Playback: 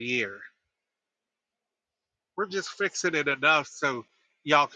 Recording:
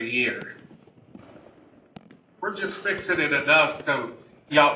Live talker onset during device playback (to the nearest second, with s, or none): none